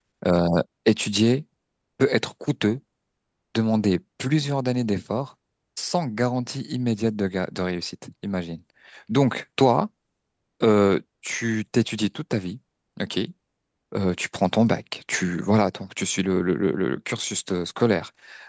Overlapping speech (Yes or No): No